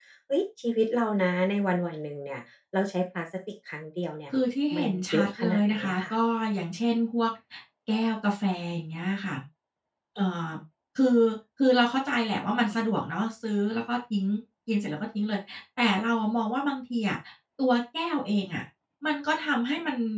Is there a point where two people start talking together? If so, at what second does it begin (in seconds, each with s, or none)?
4.7 s